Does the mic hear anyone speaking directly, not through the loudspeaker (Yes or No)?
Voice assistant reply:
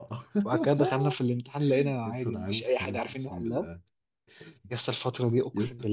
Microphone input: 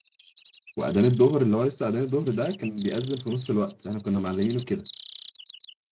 Yes